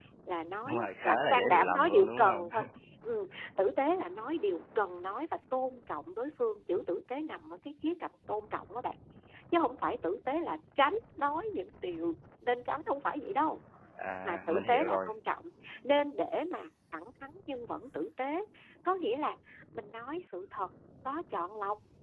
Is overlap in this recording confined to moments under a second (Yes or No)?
No